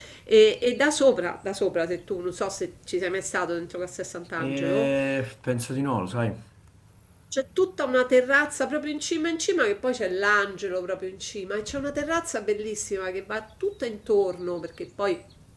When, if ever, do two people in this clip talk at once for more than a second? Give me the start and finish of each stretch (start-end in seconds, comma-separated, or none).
none